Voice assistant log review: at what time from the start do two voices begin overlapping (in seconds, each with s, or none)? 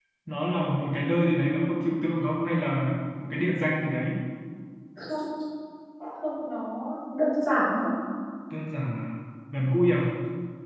none